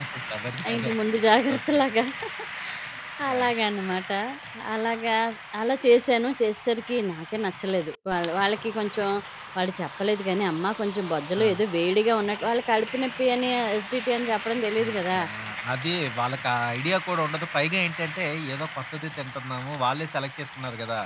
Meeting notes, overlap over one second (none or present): none